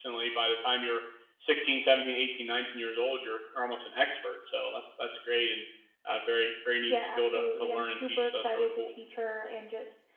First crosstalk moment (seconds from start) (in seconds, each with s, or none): 6.9 s